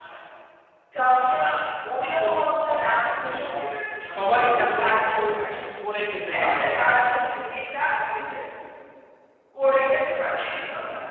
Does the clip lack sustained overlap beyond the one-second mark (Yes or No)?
No